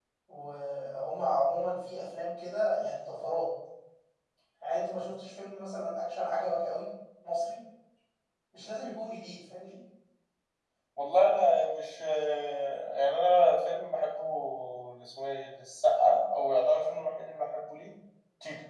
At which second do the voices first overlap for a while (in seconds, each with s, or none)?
none